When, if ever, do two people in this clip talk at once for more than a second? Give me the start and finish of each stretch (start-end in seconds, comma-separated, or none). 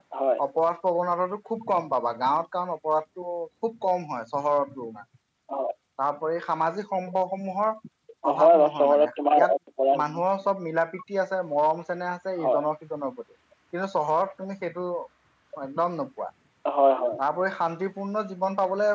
8.3-9.5